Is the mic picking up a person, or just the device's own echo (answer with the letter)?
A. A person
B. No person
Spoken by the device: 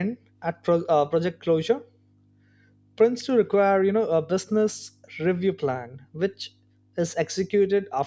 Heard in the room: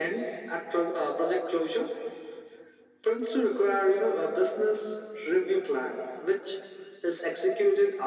B